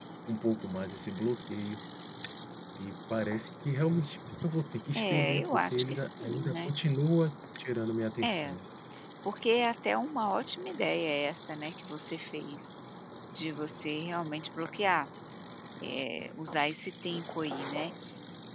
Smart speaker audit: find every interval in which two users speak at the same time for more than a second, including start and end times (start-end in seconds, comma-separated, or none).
5.0-6.7